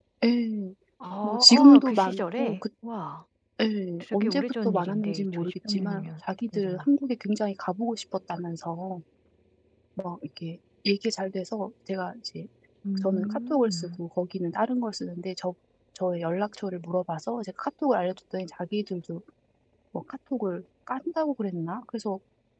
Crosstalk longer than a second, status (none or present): present